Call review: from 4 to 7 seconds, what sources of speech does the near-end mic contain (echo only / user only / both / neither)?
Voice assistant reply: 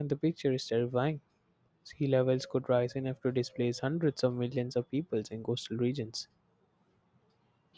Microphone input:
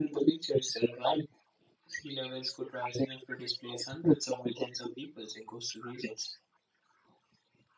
echo only